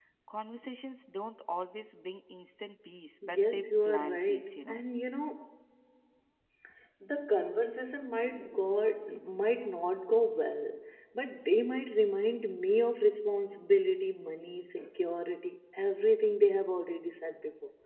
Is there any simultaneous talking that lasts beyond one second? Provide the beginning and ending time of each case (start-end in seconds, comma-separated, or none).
3.4-4.8